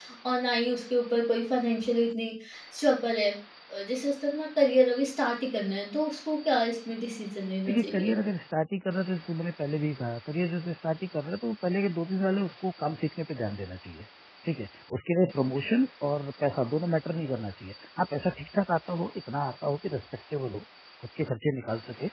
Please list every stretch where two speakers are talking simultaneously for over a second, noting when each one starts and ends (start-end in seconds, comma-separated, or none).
none